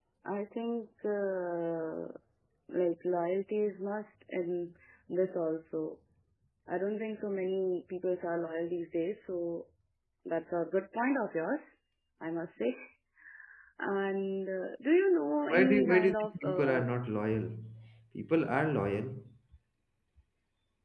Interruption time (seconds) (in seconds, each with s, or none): 15.5 s